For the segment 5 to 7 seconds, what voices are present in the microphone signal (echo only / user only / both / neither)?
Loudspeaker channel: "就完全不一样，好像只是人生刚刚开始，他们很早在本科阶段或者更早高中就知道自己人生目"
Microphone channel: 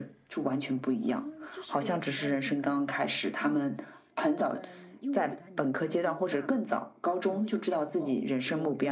both